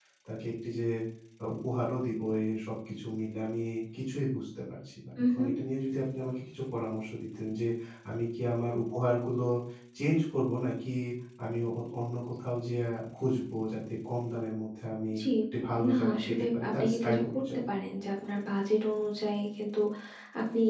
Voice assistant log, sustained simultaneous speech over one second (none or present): present